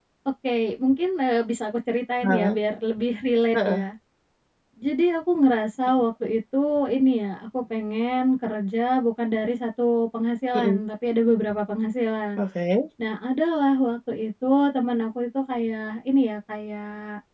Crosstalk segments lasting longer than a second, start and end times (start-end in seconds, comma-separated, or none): none